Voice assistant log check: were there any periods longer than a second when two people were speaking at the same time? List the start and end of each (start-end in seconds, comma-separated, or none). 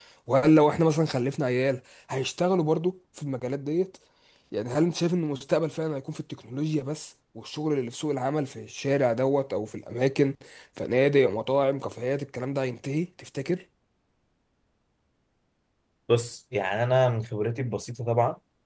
none